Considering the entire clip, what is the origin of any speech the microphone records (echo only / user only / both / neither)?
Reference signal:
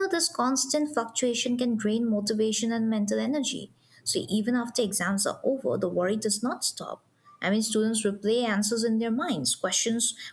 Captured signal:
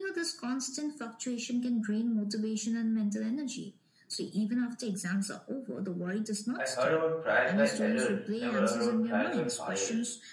both